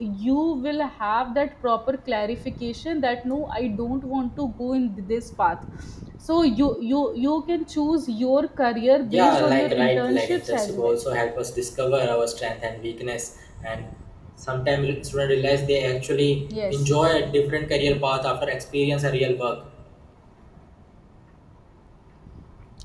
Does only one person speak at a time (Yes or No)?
No